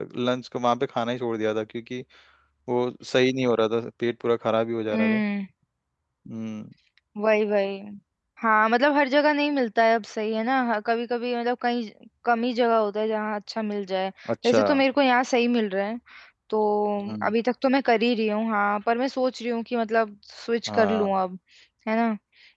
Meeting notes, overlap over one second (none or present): none